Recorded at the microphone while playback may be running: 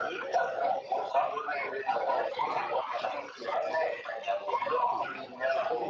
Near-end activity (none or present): present